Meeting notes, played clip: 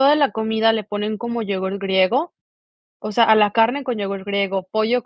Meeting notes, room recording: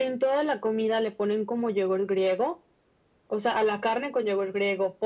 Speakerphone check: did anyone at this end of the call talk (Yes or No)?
No